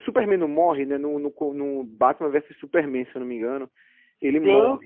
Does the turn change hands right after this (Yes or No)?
Yes